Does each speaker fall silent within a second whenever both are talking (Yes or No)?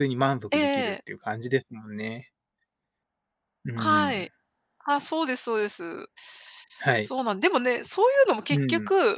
Yes